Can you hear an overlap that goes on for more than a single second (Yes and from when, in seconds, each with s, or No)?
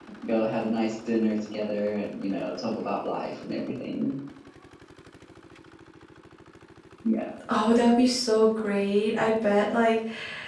No